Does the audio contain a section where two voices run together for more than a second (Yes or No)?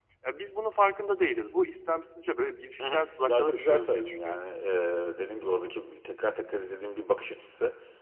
Yes